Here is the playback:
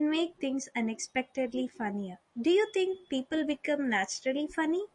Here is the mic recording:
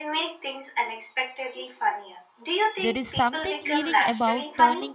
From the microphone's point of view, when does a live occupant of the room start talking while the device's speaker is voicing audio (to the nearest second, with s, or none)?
3 s